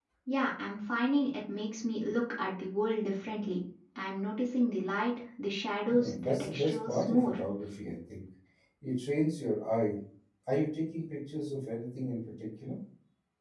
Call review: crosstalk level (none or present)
present